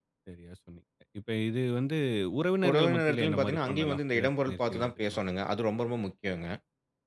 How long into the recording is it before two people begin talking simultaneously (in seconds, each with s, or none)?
2.7 s